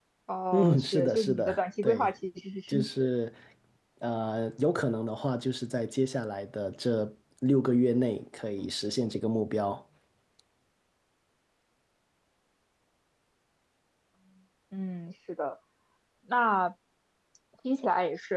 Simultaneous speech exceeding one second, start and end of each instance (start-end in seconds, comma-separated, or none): 0.5-2.1